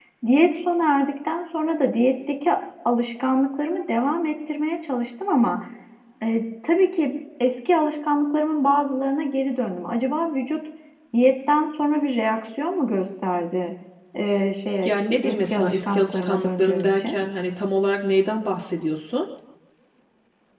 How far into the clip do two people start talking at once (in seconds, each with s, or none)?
14.8 s